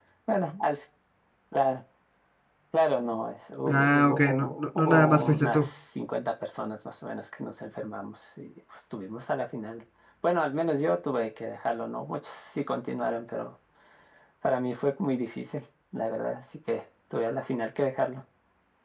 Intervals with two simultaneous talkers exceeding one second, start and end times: 3.6-5.7

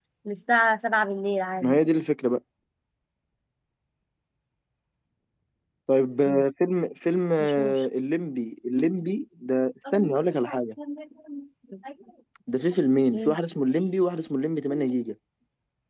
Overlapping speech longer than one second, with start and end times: none

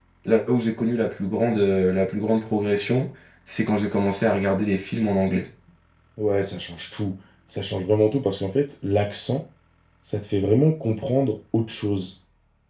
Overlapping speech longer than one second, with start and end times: none

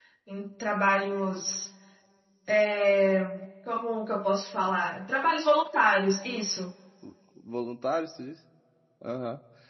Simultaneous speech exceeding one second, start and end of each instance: none

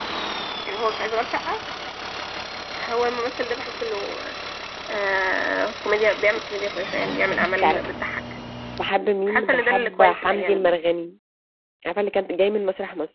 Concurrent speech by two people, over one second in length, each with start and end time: 9.3-10.7

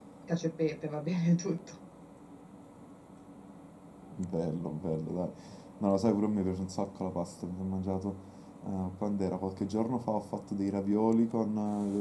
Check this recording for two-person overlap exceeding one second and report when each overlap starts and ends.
none

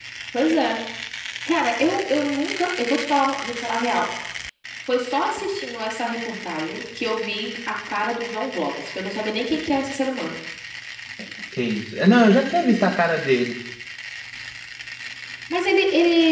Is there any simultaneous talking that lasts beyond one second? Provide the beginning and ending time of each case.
none

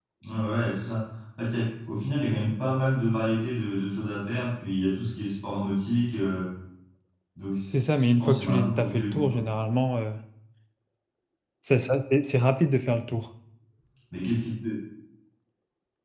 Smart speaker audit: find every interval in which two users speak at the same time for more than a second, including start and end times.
7.7-9.4

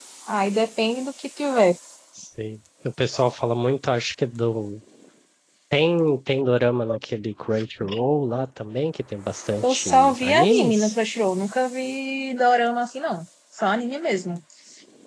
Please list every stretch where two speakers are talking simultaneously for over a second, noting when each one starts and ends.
9.6-10.9

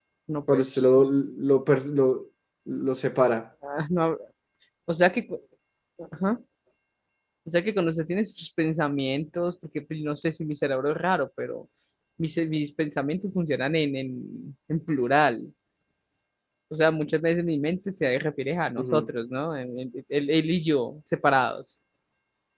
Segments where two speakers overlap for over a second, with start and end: none

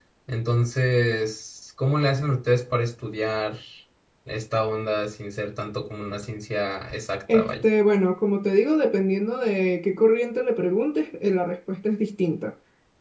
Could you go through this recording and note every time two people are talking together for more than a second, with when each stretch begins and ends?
none

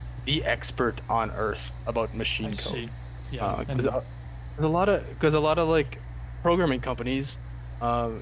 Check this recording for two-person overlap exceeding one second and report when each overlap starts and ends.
none

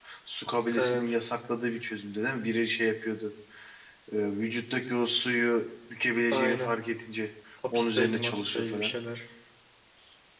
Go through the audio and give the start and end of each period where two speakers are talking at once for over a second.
7.7-8.9

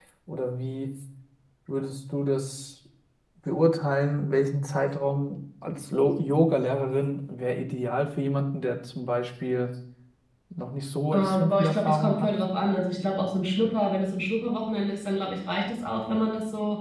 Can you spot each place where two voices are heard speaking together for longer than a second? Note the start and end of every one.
11.1-12.3

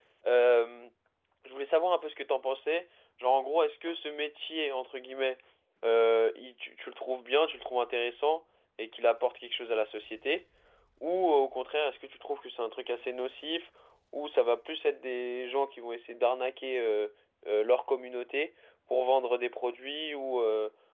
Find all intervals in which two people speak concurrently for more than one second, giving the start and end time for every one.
none

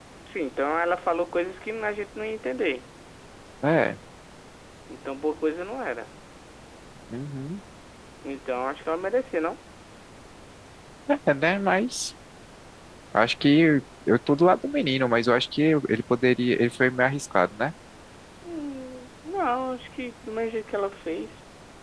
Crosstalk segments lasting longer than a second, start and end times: none

